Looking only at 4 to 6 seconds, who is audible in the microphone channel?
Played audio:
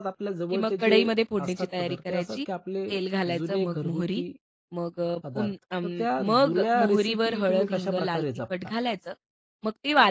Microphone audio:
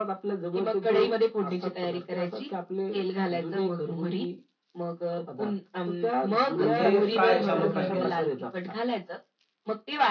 echo only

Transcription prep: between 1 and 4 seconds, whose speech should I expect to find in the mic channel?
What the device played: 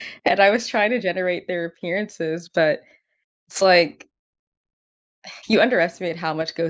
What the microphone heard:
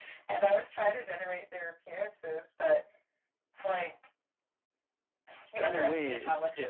echo only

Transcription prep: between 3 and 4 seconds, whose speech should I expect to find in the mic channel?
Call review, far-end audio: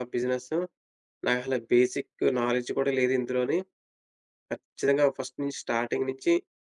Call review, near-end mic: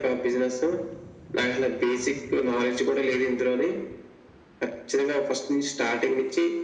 echo only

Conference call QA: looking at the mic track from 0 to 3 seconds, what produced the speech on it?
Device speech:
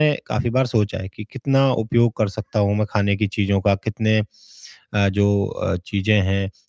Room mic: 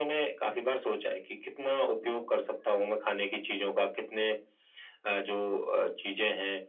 echo only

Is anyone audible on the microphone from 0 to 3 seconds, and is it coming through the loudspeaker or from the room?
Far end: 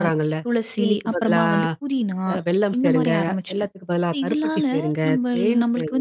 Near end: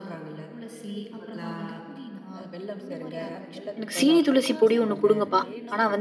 echo only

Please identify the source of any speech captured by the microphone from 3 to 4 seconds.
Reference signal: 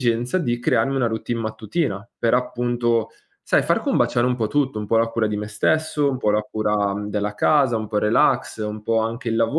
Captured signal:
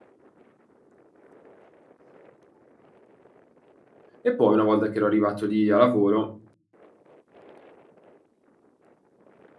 neither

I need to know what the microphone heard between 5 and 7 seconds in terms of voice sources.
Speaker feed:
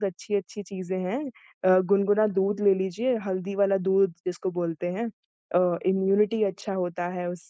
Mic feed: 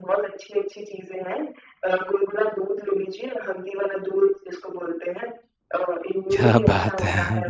both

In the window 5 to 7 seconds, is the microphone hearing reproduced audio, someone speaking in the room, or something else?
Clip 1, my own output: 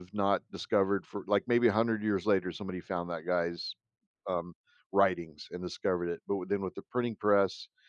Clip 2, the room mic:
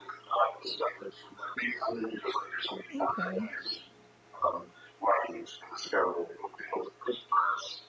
echo only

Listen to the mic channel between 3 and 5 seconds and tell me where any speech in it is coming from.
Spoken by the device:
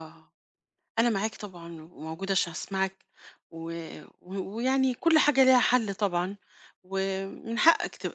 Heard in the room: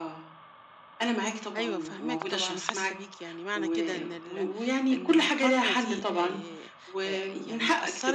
both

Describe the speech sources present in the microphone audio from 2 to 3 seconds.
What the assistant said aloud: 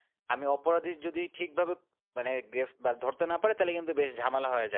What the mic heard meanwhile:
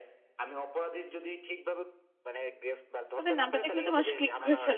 echo only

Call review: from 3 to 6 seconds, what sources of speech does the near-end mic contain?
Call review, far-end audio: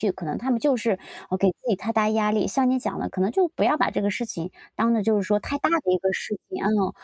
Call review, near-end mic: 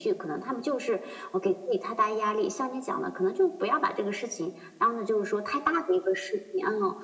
echo only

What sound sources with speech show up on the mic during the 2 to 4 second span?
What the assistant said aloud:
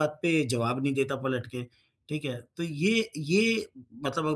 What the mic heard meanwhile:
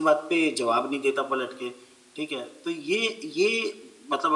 echo only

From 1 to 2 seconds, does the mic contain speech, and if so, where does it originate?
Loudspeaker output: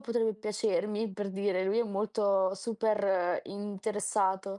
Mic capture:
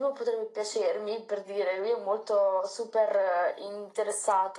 echo only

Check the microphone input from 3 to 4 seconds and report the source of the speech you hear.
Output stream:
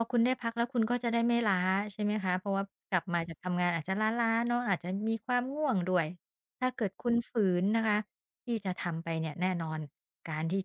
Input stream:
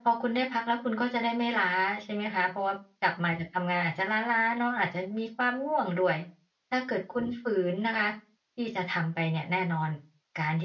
echo only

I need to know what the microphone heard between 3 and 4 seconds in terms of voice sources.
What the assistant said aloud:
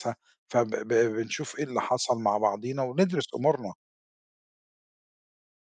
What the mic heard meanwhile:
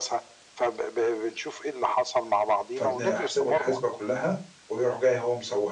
both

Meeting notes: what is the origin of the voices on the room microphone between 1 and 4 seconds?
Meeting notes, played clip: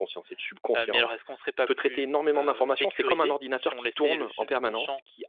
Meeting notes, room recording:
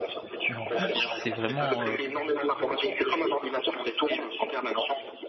both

